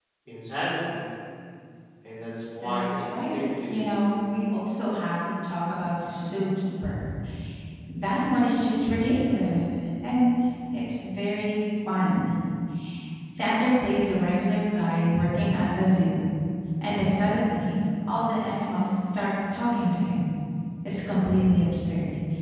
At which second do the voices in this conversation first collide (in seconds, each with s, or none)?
2.6 s